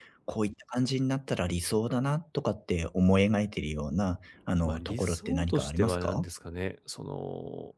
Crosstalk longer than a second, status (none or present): present